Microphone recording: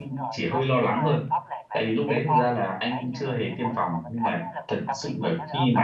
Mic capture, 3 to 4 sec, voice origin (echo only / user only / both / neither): both